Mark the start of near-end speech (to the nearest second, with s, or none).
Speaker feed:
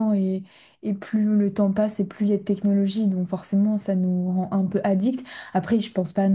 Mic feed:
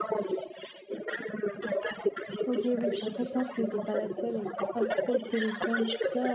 2 s